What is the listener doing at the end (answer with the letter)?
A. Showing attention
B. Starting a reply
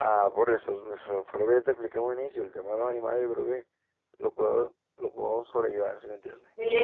B